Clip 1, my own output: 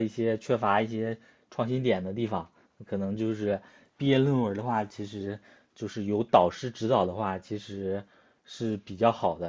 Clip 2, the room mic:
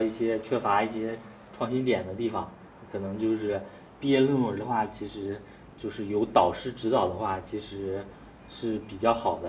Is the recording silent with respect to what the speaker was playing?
No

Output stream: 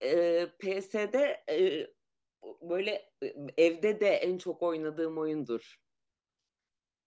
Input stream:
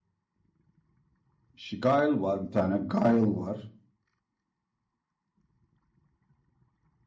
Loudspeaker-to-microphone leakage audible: No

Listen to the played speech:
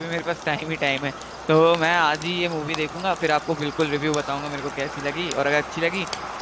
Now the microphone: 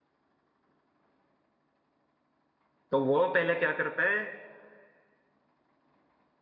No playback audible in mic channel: Yes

